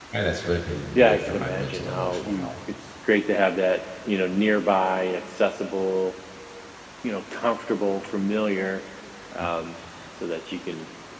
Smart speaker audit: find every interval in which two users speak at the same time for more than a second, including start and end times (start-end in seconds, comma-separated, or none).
0.9-2.5